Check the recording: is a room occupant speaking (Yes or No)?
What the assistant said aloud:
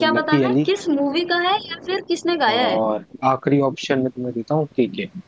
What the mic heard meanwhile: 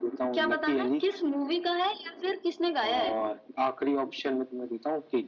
No